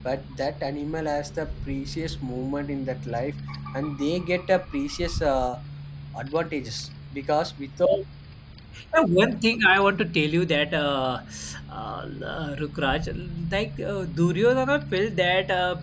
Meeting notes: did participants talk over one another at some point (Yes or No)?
No